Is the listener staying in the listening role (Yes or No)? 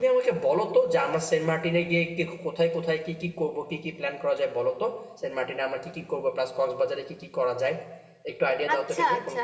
No